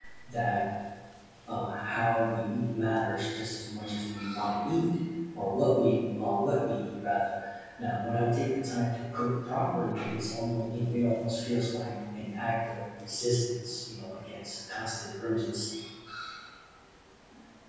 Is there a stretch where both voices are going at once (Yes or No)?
No